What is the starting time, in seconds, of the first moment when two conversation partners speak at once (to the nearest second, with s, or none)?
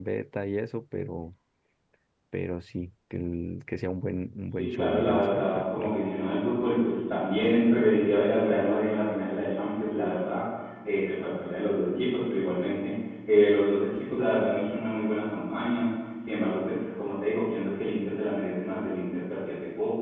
5 s